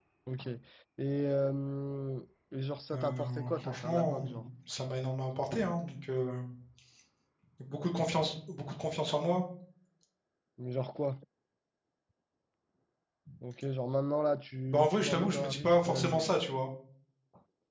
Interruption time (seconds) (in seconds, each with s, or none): 2.9 s